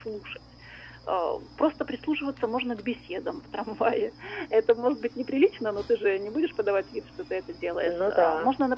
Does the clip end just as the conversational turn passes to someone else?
No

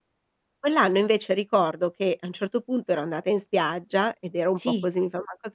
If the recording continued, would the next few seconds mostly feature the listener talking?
No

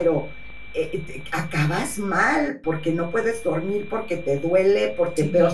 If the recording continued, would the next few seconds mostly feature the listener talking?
No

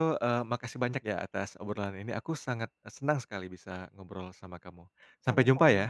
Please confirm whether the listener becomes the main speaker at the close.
Yes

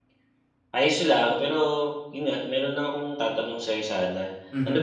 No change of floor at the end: Yes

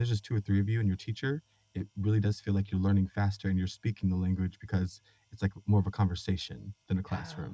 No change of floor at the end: No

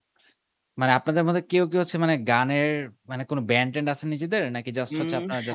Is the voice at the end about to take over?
Yes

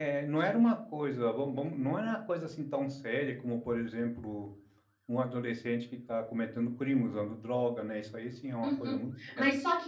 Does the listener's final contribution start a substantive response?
Yes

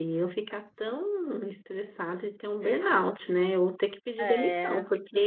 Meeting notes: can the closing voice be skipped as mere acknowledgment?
Yes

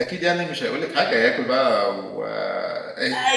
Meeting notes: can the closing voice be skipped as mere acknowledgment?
No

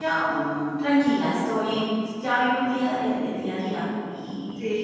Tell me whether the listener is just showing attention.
Yes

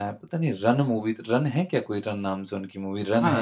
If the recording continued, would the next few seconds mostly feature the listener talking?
Yes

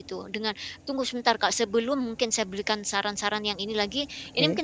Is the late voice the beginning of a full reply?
No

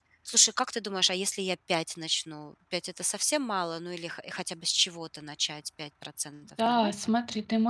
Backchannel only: No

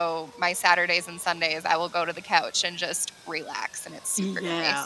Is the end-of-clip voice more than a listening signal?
Yes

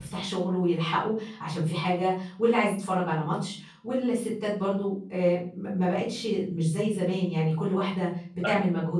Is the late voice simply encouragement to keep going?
Yes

